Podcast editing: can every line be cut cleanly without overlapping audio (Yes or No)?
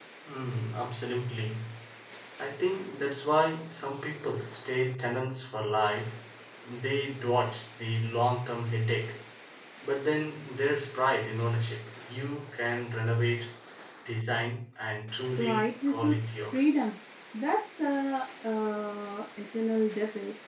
No